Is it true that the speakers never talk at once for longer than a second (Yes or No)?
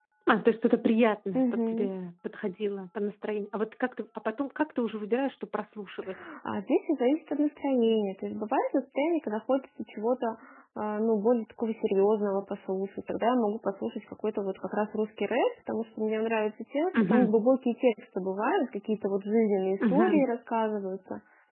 Yes